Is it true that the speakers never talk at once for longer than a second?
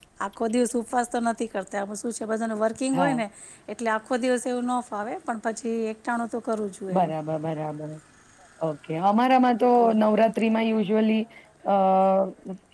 Yes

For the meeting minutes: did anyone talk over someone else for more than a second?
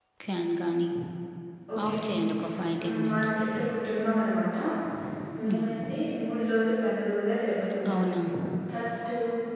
Yes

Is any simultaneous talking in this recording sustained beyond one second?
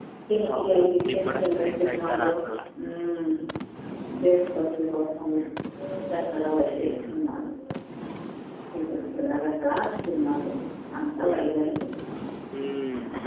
Yes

